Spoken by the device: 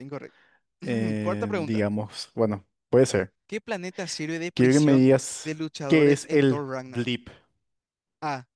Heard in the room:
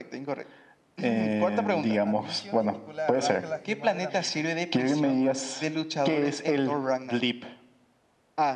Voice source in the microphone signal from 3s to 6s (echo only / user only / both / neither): both